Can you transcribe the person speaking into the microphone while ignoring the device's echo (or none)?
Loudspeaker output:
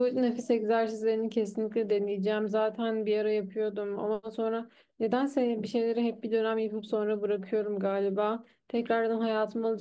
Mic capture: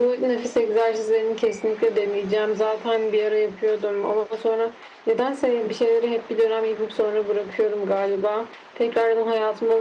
none